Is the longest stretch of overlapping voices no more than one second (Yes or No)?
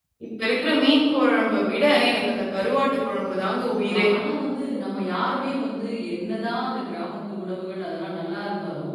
Yes